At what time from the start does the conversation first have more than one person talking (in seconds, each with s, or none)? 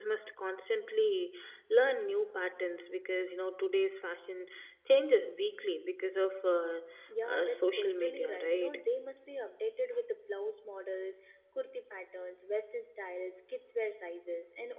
7.2 s